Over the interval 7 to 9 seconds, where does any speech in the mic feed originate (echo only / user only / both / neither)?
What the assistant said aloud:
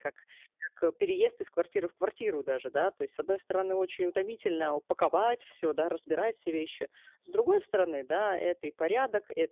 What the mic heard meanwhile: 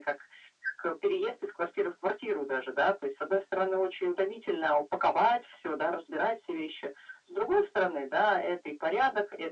echo only